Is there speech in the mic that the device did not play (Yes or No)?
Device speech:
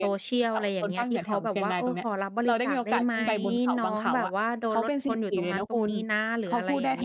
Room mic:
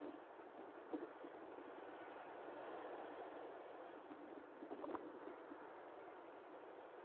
No